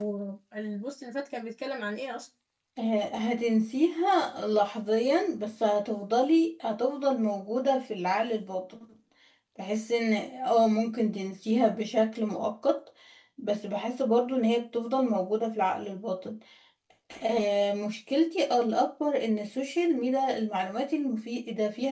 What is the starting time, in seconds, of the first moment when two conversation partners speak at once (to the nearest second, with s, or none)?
none